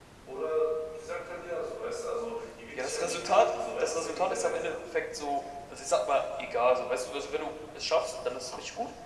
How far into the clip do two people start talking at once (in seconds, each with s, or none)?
2.7 s